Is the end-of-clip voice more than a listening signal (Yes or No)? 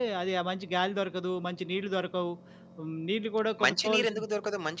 Yes